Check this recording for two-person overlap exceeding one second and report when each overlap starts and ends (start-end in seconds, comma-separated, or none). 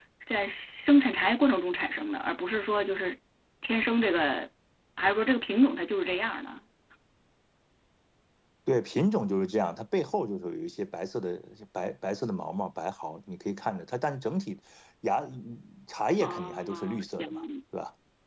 16.2-17.4